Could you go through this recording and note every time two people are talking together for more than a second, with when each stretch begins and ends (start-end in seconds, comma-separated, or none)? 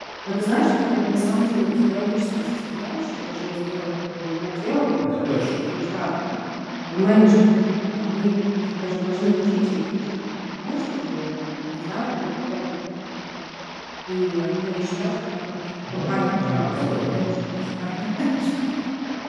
15.9-17.2